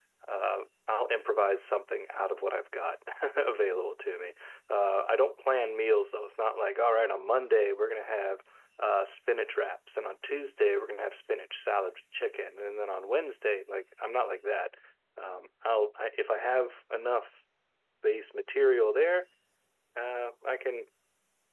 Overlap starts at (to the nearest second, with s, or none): none